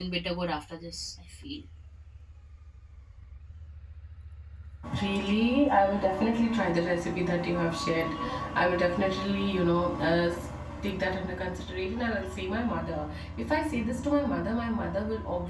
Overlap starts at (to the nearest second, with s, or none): none